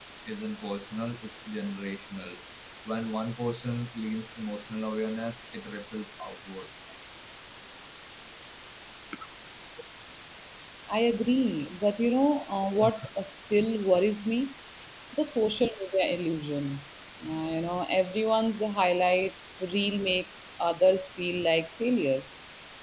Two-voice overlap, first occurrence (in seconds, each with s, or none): none